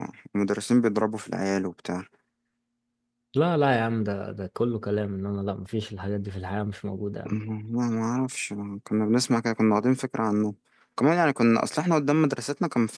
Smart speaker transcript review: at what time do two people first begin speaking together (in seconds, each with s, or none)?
none